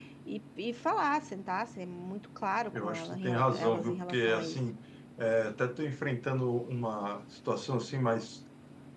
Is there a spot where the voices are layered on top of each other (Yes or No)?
Yes